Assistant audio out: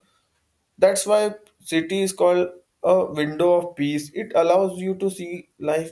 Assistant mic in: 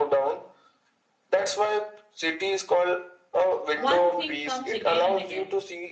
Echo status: present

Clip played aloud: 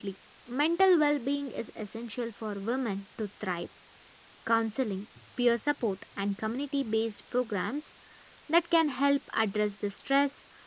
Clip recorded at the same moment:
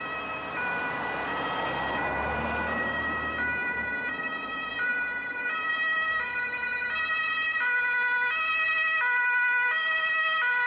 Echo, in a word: none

